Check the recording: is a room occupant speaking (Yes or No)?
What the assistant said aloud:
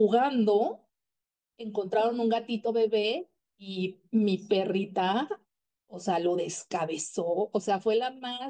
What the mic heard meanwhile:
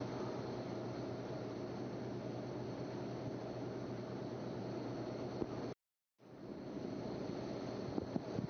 No